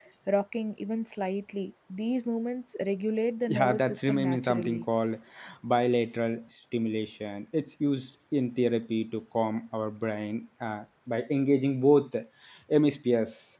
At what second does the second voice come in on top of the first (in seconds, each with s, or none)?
3.5 s